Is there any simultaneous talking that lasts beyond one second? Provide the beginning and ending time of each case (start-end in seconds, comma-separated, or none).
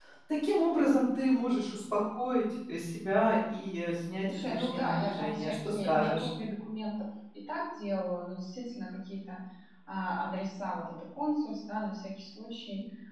4.3-6.3